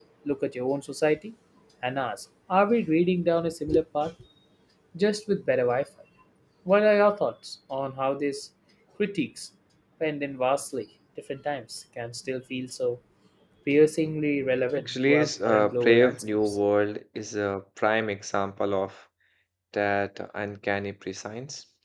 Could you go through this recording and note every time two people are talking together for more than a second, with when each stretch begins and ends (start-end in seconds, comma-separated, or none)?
14.8-16.6